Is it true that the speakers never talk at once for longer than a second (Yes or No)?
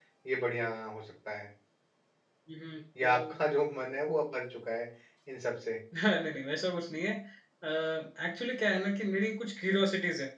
Yes